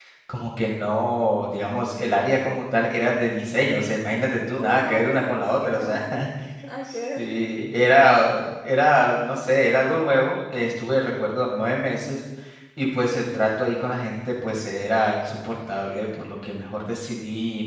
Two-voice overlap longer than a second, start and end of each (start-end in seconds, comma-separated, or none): 4.6-6.0